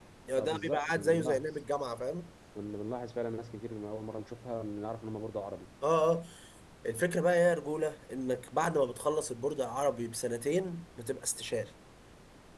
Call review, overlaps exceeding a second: present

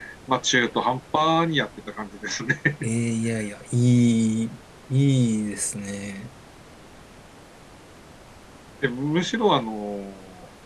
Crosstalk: none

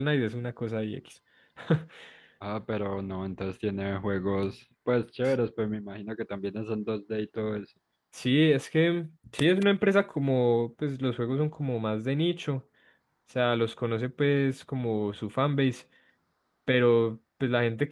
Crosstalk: none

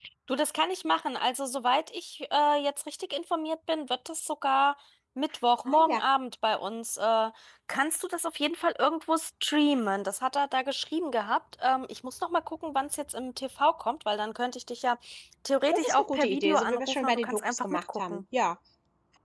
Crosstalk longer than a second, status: present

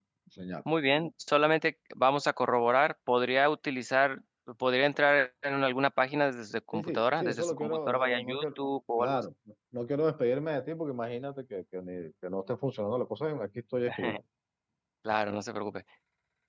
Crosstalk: present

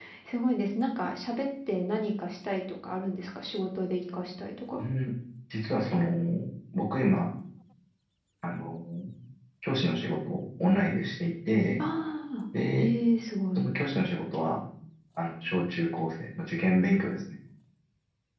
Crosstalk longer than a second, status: none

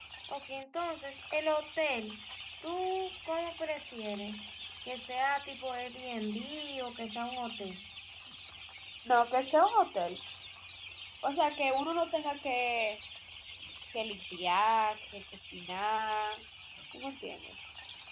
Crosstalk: none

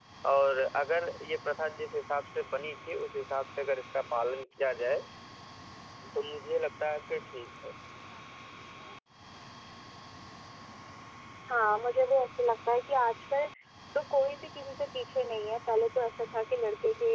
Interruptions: none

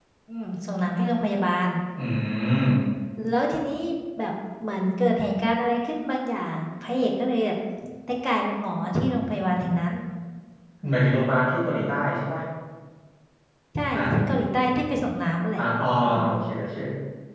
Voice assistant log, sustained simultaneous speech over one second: none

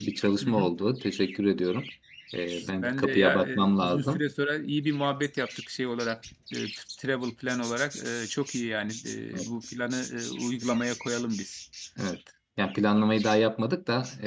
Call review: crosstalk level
present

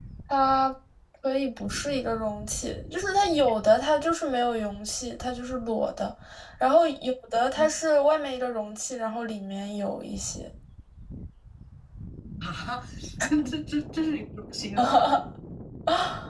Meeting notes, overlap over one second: none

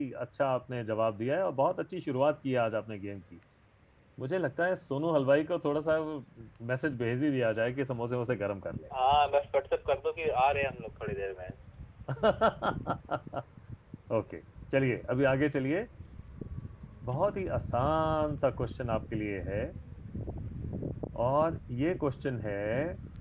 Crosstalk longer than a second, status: none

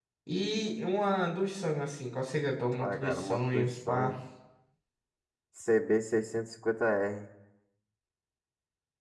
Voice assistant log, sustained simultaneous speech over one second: present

